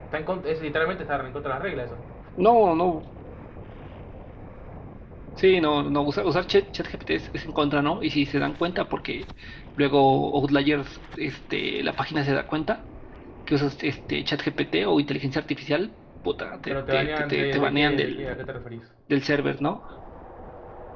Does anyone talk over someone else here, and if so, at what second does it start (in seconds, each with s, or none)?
16.7 s